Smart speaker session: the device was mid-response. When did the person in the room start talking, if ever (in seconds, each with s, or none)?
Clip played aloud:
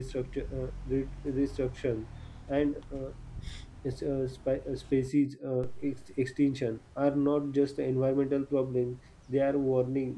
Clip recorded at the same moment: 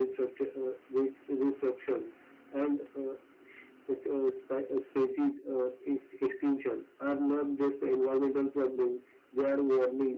none